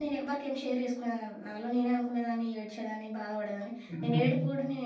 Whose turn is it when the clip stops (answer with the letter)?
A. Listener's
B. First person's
B